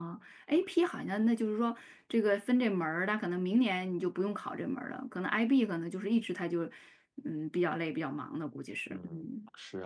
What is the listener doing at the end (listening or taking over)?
taking over